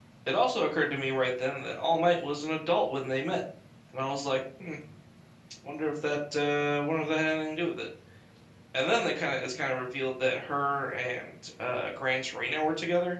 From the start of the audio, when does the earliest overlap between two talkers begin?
none

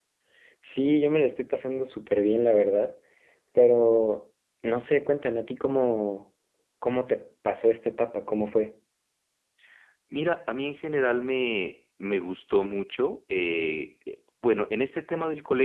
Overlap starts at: none

